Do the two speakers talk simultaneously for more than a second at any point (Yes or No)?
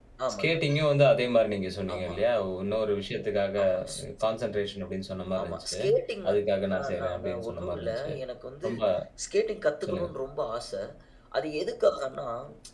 Yes